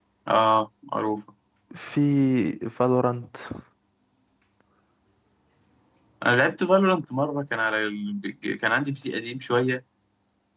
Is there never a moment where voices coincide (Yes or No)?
Yes